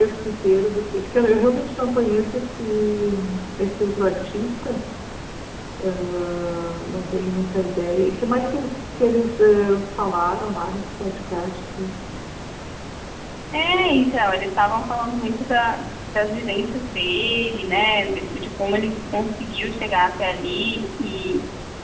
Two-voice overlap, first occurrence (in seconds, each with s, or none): none